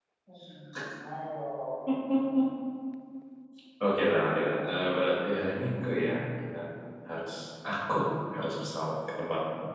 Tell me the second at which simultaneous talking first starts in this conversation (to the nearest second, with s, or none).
none